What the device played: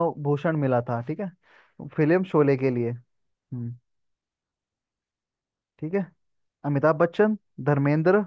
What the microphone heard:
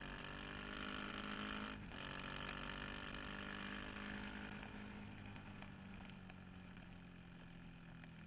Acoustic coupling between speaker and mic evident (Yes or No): No